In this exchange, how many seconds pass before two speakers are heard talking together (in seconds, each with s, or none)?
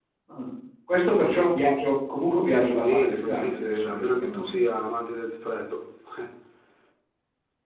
2.8 s